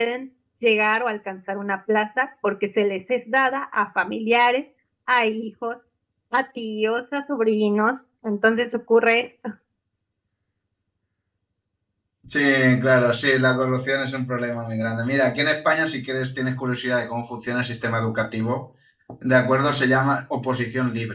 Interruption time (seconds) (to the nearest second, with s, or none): none